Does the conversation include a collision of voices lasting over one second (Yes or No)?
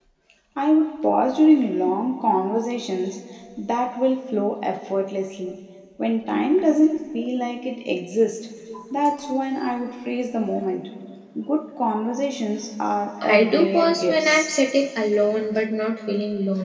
Yes